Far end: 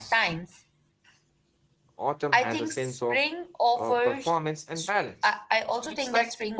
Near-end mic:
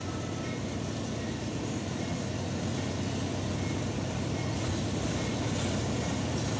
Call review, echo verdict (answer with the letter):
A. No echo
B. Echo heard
A